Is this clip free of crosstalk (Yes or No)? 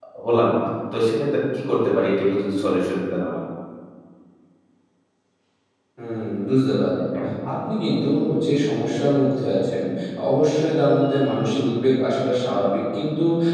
Yes